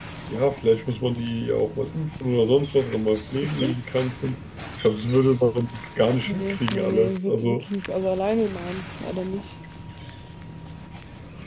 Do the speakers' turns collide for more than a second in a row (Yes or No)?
Yes